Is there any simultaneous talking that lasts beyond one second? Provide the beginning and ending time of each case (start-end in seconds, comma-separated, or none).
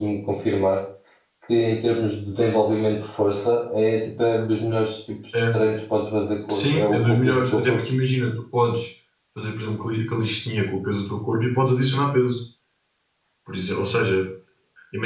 6.5-7.8